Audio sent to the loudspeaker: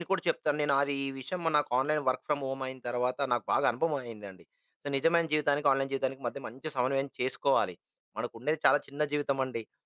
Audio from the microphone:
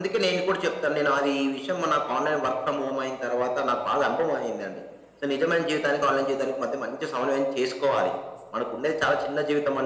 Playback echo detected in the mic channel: Yes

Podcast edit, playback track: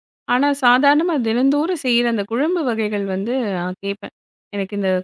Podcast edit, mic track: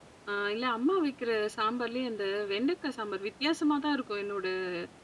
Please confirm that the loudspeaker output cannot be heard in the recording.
Yes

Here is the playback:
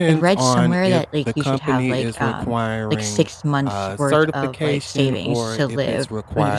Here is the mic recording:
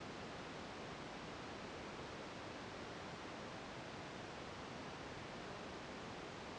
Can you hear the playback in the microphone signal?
No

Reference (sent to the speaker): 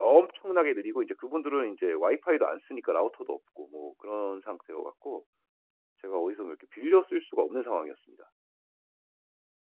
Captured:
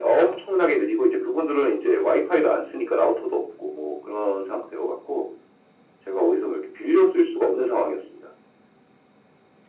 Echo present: Yes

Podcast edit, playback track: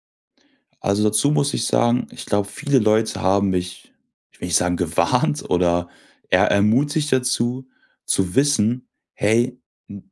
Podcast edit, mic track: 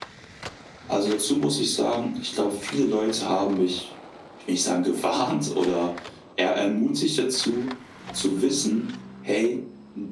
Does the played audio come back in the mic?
Yes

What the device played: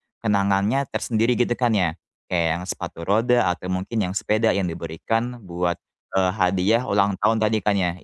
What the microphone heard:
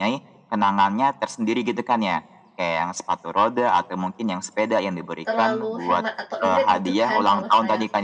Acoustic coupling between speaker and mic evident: Yes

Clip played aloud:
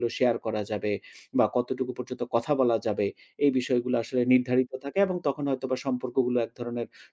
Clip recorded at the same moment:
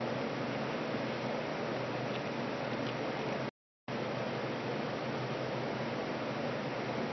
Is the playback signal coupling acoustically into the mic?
No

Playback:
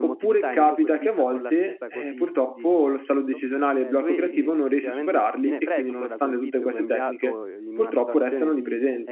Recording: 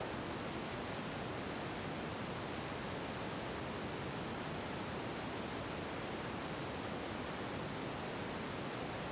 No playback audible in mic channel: Yes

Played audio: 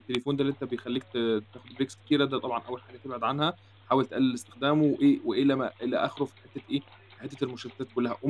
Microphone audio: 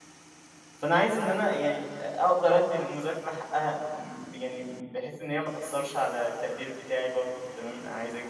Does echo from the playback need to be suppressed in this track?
No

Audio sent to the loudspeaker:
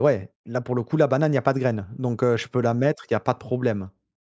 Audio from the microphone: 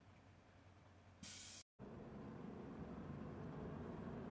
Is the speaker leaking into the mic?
No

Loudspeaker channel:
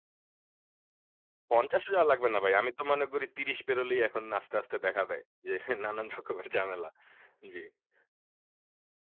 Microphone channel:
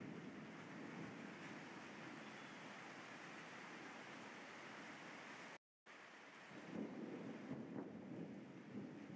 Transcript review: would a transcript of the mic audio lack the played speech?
Yes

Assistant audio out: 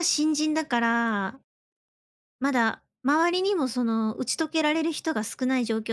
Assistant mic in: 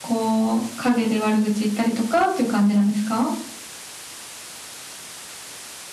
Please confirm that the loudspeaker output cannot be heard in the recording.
Yes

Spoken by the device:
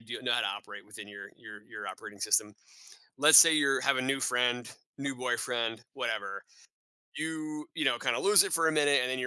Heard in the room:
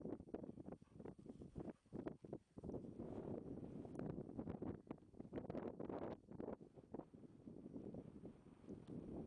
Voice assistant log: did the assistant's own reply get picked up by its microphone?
No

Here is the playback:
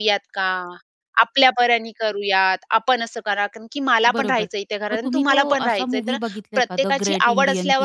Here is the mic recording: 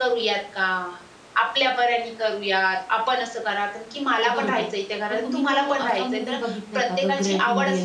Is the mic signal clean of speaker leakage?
No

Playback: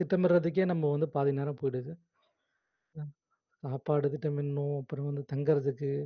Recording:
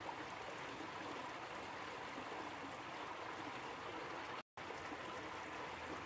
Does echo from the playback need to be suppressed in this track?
No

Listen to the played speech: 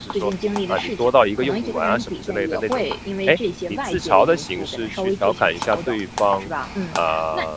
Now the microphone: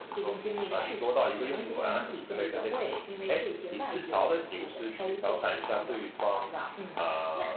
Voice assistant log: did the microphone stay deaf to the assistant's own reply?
No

